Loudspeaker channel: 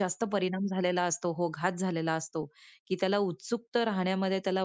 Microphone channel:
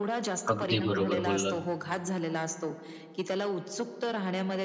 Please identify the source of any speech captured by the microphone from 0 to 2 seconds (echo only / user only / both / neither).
both